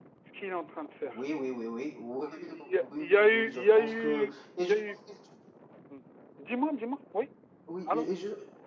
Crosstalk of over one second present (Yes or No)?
Yes